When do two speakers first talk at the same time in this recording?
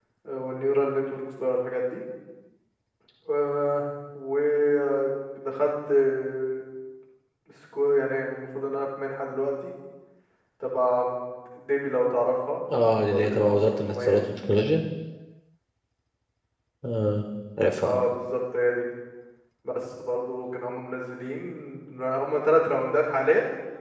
13.0 s

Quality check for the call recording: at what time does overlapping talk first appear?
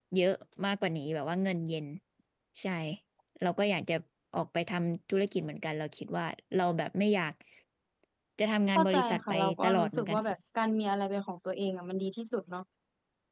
8.8 s

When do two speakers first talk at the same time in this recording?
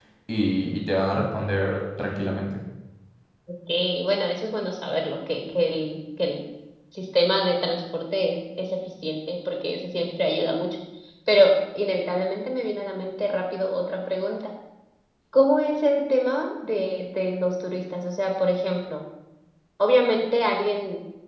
none

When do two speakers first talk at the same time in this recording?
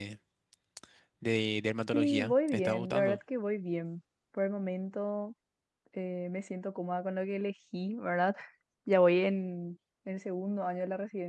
1.9 s

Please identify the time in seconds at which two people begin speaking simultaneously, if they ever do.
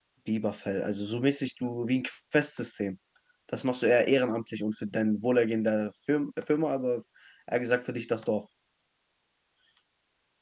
none

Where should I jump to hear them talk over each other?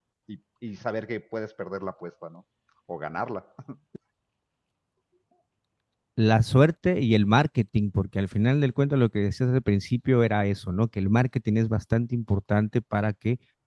none

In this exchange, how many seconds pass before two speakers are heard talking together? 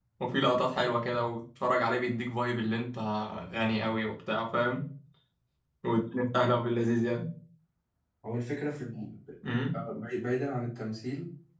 none

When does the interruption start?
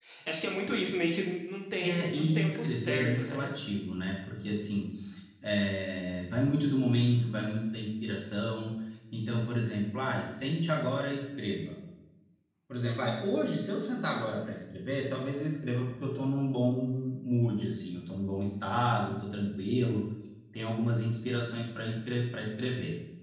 1.8 s

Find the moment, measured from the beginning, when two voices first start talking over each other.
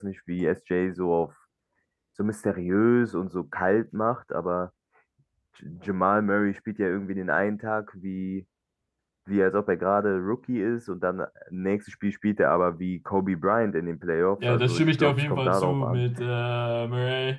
14.4 s

